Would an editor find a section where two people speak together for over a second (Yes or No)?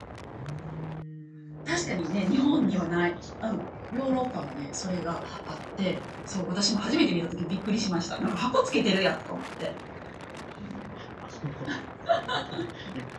Yes